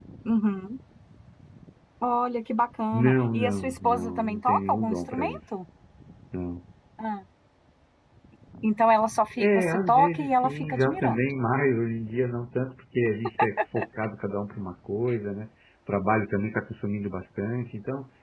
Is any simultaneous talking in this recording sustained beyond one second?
Yes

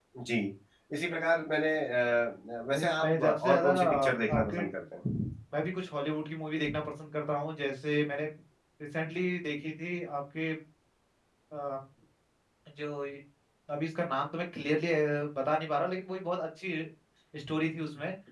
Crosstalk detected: Yes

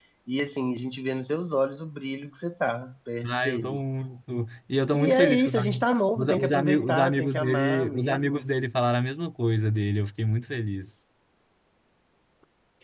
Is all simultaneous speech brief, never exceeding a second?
No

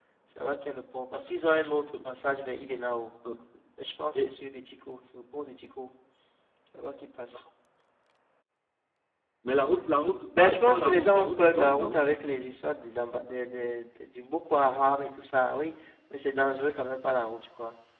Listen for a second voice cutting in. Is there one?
Yes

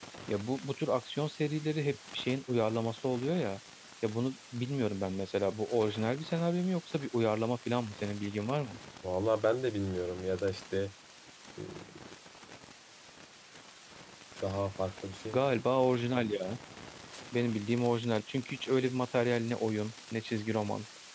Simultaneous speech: No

